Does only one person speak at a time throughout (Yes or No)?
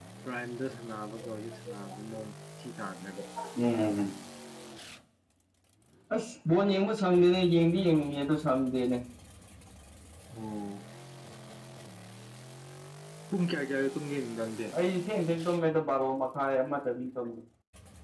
Yes